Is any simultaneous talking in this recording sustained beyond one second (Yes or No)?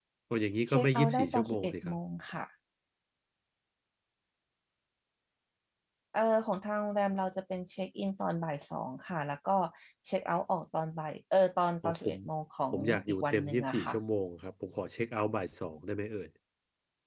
Yes